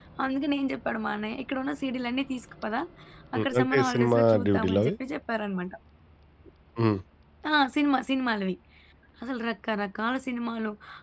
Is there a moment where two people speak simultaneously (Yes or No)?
Yes